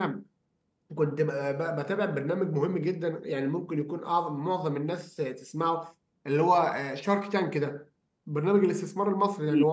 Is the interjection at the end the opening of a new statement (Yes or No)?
No